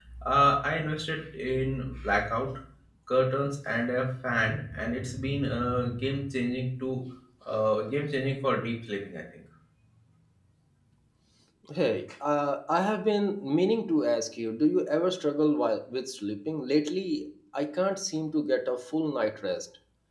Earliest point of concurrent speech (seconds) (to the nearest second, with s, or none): none